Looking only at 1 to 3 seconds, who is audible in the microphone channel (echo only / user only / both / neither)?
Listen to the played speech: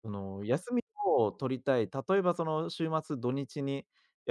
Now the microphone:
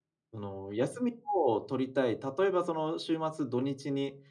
echo only